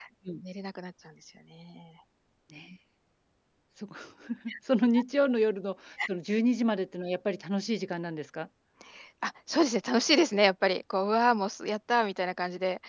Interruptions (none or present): none